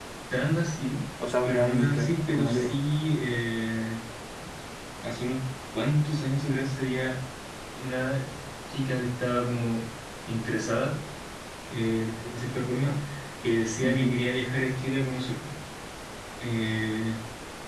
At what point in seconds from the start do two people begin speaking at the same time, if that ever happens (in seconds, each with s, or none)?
1.4 s